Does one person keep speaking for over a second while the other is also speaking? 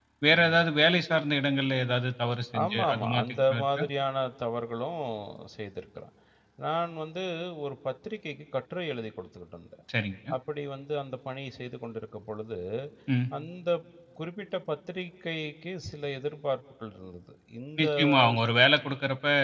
Yes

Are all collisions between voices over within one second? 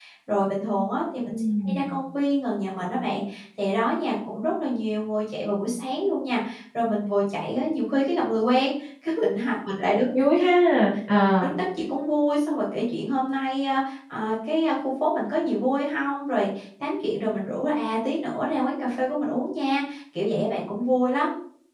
Yes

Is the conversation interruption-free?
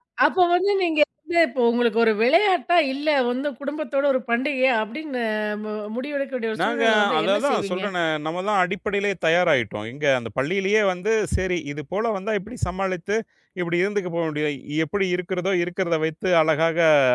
No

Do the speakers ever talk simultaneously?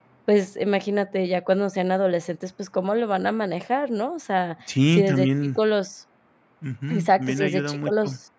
Yes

